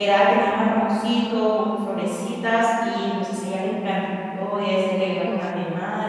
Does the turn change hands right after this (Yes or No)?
No